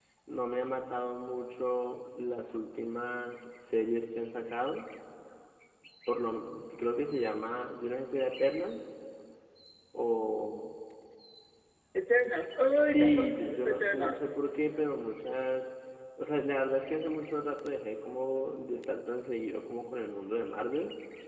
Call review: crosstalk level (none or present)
present